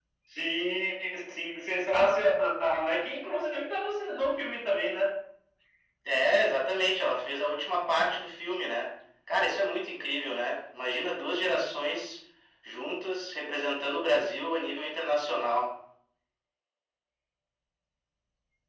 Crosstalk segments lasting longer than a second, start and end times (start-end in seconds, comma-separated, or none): none